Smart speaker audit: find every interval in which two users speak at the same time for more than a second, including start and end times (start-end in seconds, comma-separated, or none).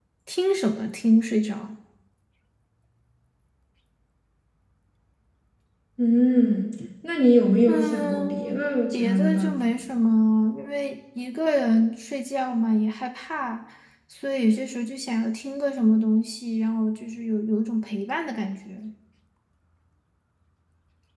7.7-9.8